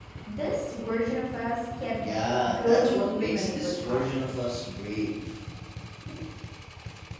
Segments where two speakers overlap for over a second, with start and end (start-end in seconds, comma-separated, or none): 2.5-4.2